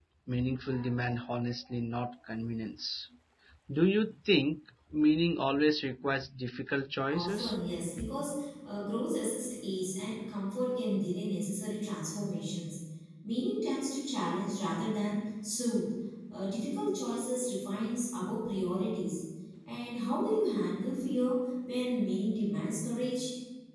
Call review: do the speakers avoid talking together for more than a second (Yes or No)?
Yes